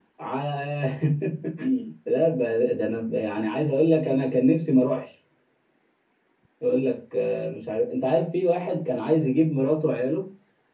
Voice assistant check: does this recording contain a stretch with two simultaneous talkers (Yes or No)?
No